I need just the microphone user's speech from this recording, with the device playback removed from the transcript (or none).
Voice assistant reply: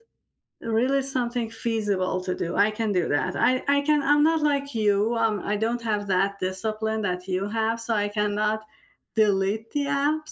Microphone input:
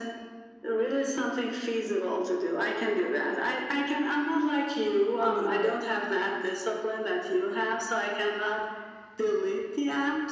deleted it.